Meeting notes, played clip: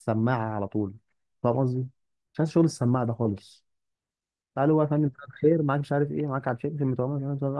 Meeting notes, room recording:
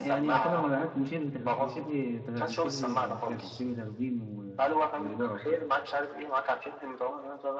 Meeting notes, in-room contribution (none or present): present